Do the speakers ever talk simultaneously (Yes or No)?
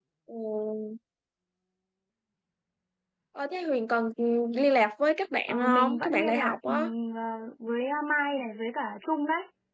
Yes